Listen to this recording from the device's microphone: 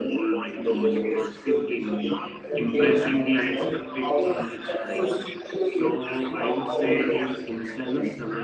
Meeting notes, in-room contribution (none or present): present